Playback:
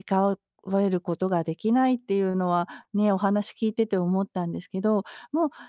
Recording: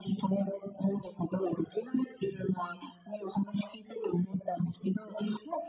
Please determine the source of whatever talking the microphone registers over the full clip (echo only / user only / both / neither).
echo only